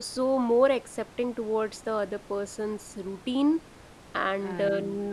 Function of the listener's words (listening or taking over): listening